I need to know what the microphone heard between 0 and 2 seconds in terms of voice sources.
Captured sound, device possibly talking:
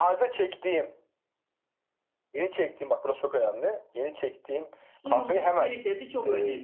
echo only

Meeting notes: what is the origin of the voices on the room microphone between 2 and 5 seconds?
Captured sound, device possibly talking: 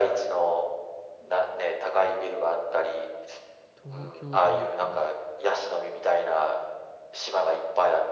both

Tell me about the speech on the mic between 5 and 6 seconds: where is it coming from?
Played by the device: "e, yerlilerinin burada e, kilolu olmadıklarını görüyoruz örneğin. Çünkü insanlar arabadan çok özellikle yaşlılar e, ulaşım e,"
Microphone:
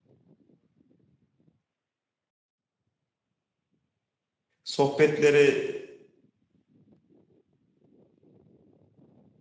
user only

